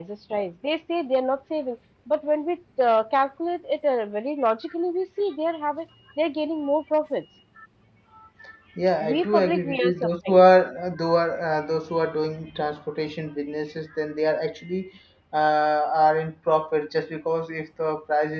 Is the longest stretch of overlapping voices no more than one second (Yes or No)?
No